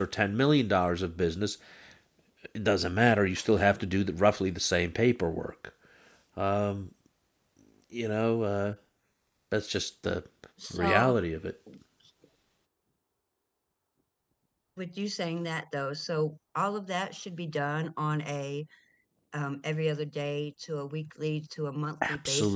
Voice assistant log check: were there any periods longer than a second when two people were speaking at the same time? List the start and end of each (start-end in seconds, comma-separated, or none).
none